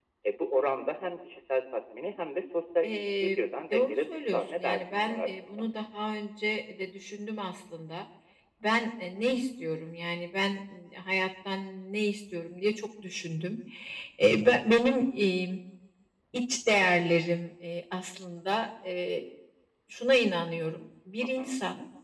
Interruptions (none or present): present